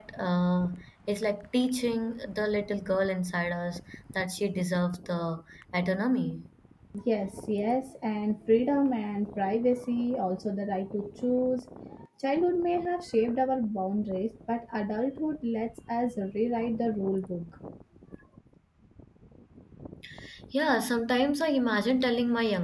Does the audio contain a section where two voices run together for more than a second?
No

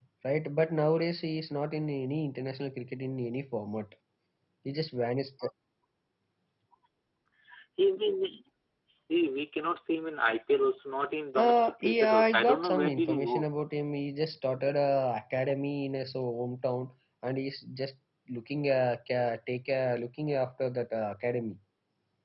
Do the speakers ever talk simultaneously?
Yes, from 11.3 s

